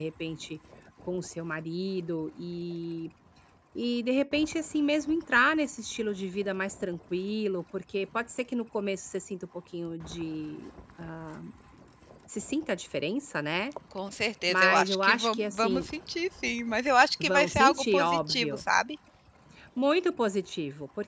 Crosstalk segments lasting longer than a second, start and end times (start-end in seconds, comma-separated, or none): 14.5-15.9, 17.2-18.6